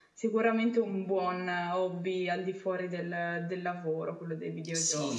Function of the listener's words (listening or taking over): taking over